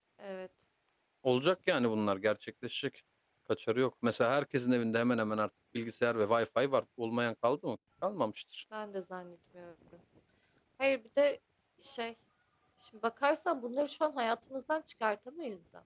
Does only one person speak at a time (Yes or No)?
Yes